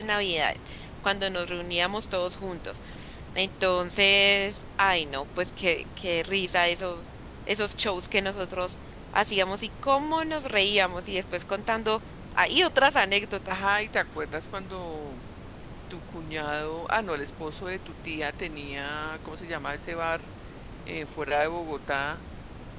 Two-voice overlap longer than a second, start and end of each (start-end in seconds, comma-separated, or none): none